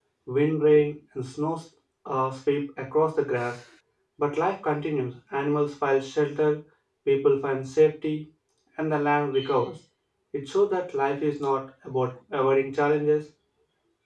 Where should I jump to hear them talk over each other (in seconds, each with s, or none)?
none